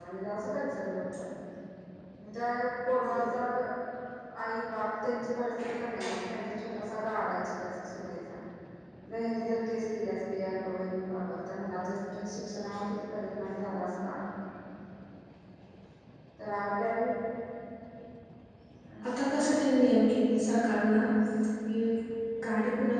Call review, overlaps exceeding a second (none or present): none